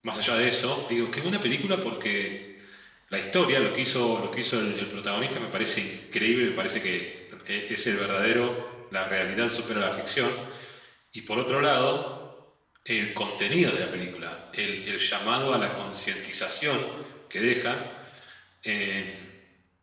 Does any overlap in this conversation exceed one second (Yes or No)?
No